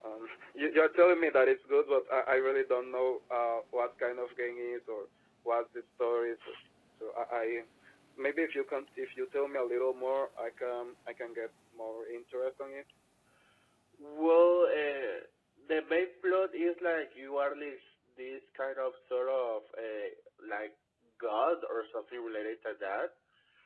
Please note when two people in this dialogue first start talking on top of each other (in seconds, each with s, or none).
none